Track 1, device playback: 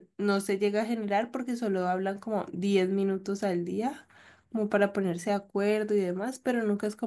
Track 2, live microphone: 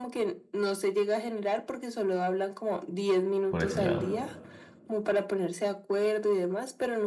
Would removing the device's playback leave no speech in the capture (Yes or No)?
No